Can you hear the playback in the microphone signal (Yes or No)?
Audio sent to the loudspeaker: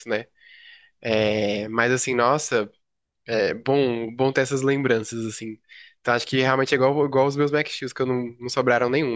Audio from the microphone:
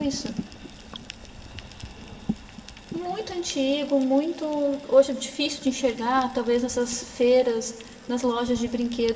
No